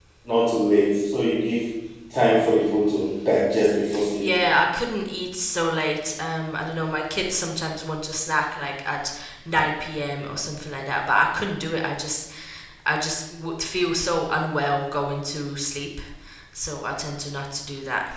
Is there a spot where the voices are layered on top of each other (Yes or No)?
No